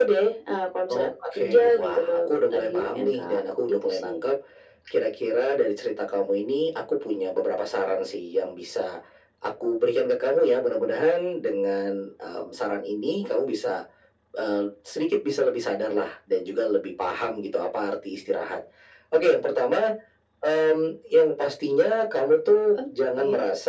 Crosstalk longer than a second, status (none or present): present